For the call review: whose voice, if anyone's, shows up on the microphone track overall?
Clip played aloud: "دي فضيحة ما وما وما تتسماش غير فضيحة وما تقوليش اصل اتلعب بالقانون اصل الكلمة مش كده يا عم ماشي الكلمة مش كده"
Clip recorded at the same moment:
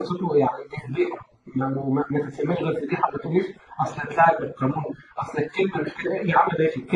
echo only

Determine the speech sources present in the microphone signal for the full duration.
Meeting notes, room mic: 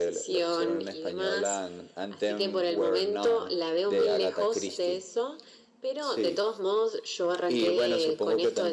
echo only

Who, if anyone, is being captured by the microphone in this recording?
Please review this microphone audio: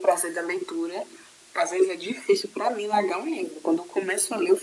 echo only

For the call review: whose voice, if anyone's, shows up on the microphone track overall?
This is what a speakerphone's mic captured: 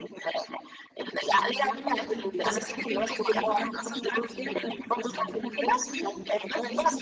both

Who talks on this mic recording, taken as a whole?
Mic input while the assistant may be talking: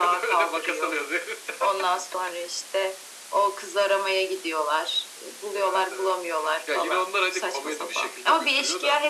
echo only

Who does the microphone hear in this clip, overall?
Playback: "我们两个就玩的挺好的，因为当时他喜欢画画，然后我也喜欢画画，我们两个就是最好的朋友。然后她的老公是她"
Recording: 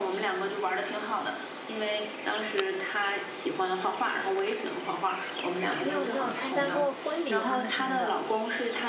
both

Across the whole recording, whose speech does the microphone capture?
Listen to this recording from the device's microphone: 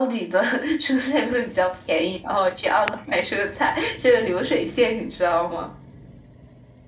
echo only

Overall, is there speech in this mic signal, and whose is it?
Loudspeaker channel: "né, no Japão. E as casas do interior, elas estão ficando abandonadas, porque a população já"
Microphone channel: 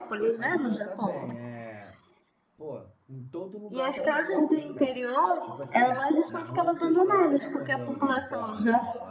both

